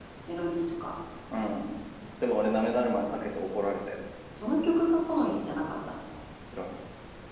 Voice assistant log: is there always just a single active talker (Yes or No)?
Yes